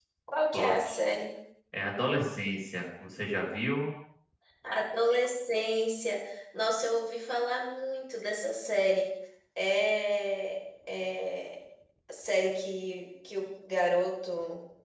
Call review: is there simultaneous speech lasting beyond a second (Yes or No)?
No